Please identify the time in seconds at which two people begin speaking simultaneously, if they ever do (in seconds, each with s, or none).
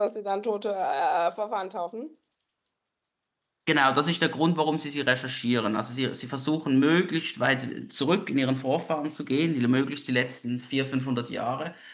none